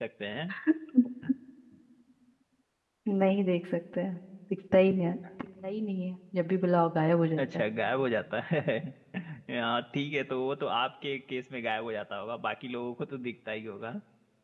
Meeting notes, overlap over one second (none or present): none